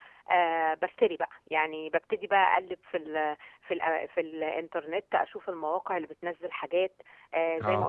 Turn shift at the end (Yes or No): No